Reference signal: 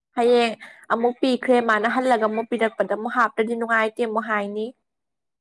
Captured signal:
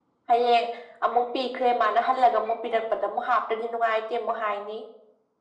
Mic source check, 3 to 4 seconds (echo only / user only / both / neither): echo only